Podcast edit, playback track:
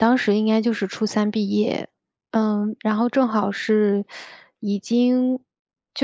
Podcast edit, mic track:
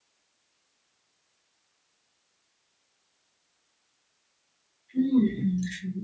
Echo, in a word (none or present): none